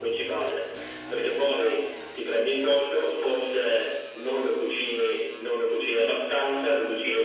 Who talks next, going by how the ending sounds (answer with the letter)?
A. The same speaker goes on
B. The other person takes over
A